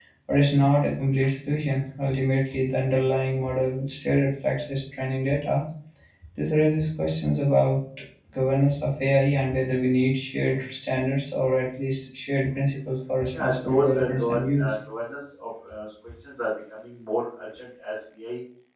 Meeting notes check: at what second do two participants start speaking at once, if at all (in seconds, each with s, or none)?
13.3 s